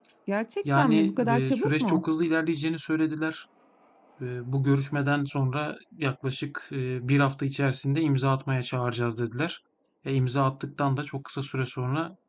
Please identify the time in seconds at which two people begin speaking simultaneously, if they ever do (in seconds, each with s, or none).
0.8 s